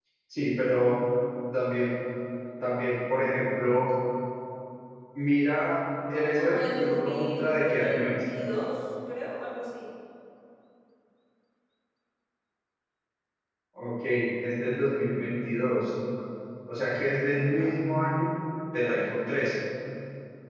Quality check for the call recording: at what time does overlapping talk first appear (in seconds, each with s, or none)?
6.4 s